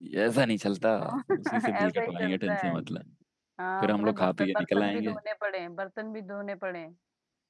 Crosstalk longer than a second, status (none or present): present